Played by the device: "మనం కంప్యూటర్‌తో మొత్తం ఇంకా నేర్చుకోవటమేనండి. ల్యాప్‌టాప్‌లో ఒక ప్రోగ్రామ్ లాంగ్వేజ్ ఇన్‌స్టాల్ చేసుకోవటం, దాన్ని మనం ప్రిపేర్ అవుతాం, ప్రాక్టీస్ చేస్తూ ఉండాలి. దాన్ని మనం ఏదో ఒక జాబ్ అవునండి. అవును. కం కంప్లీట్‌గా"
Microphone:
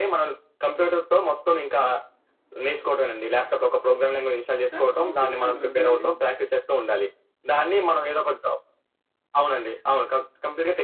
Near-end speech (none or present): present